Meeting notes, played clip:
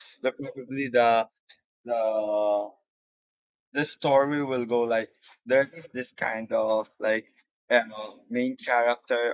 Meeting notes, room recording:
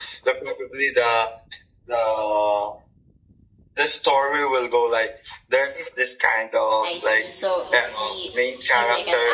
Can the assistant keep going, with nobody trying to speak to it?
No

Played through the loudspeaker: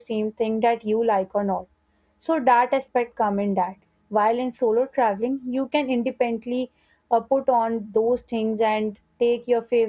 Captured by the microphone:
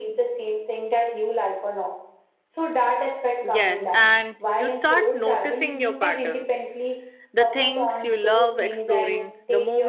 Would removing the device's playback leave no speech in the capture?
No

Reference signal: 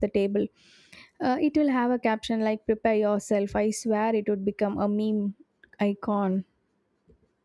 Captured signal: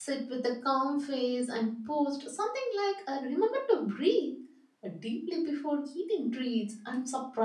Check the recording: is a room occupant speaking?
Yes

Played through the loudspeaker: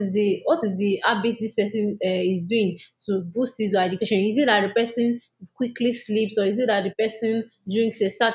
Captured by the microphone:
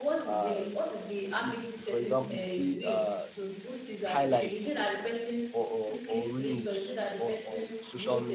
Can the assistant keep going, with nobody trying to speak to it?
No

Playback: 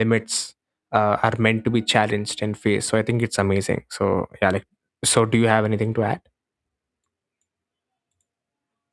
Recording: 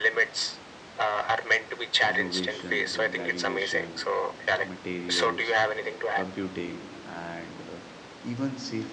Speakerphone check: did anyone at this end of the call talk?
Yes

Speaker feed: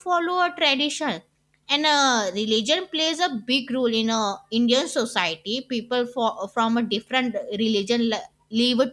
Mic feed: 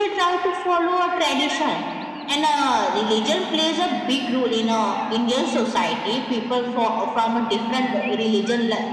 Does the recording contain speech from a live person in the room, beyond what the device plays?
No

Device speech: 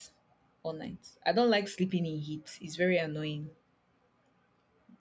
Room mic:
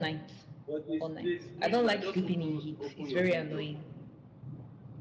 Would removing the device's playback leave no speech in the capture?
No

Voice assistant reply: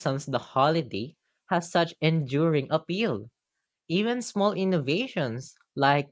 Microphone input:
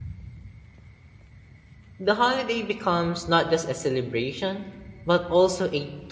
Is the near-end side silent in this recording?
No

